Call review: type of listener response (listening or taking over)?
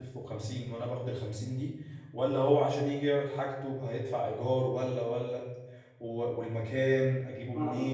taking over